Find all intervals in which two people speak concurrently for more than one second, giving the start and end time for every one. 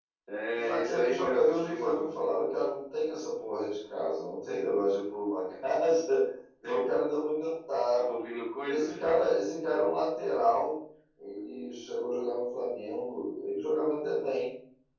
0.5-2.1

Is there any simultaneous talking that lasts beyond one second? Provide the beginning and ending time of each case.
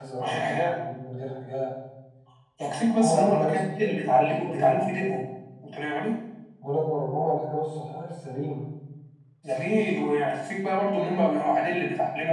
3.0-4.9

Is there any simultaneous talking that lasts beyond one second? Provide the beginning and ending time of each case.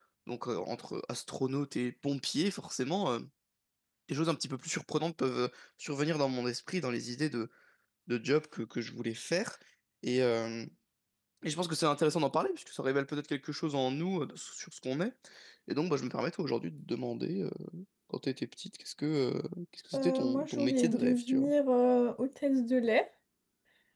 19.9-21.5

